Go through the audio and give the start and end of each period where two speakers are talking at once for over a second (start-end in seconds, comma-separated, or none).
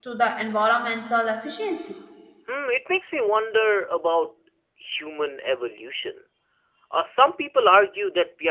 none